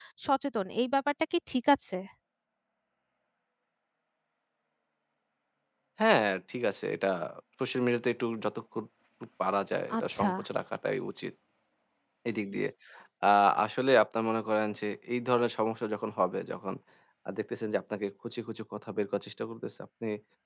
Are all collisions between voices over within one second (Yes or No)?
Yes